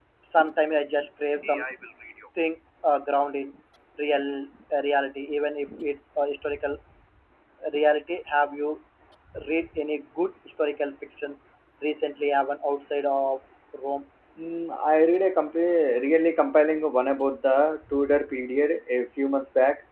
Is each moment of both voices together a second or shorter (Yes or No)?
Yes